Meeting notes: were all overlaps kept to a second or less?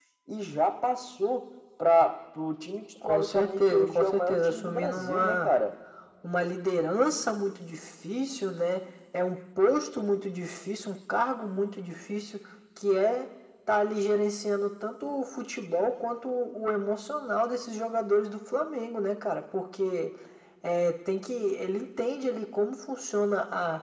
No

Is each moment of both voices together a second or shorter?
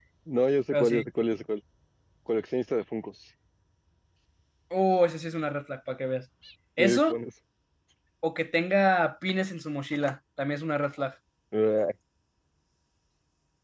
Yes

